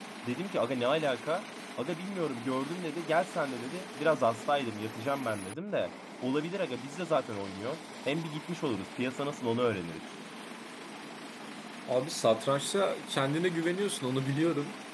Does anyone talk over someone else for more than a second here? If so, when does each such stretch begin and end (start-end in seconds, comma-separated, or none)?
none